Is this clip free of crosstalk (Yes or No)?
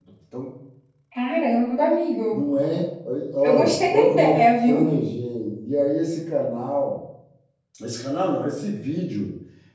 No